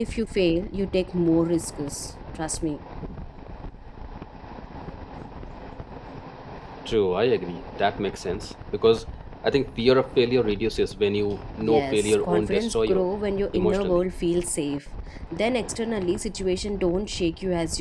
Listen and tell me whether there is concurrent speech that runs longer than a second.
Yes, from 11.7 s

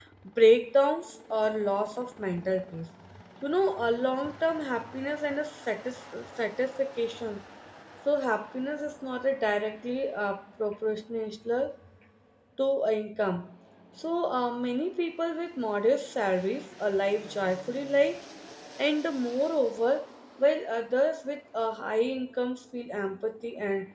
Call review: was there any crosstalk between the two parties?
No

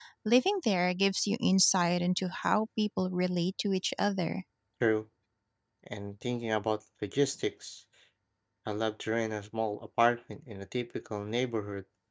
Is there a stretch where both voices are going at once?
No

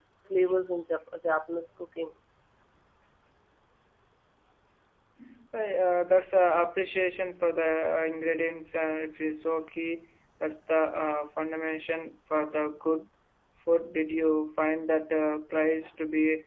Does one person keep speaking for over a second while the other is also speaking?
No

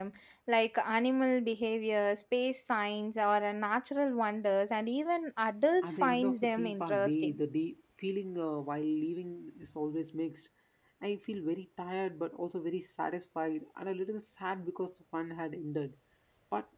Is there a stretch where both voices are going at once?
Yes, from 5.8 s

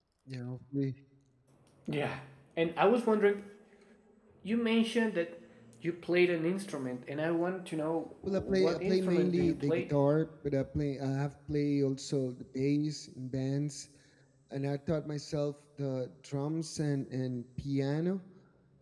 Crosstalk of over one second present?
Yes, from 8.2 s

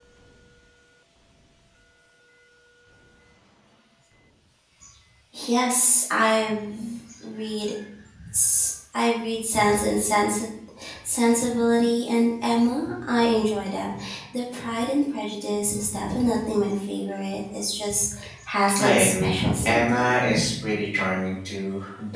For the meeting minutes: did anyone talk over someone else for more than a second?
Yes, from 18.7 s

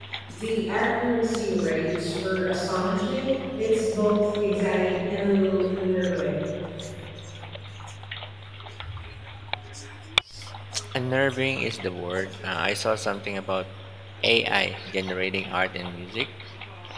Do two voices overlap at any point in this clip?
No

